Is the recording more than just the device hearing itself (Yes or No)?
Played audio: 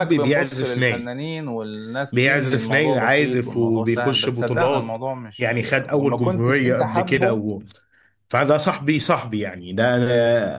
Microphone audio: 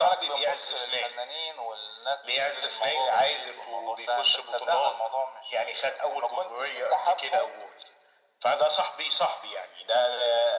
No